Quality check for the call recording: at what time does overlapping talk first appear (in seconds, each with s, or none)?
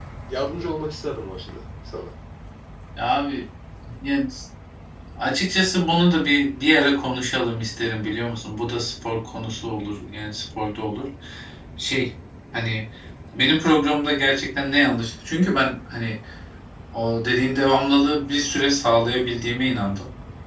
none